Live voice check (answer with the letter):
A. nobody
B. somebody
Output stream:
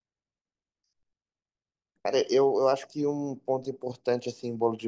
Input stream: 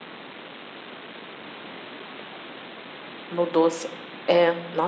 B